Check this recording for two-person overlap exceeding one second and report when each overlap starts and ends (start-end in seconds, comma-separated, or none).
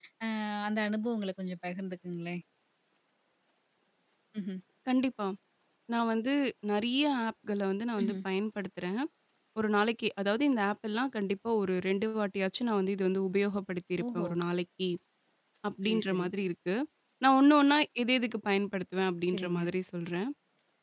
none